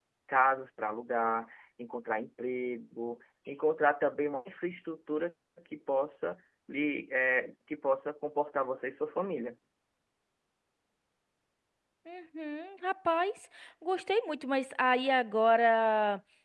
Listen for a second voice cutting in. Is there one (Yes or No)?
No